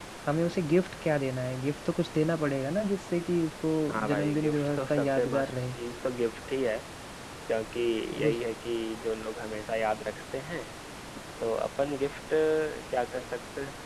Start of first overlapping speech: 4 s

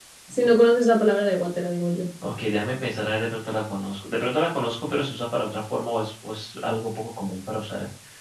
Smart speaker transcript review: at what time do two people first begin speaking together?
none

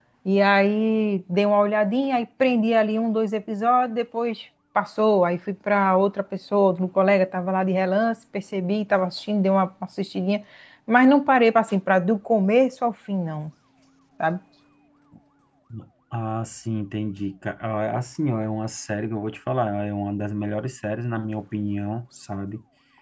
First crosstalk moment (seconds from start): none

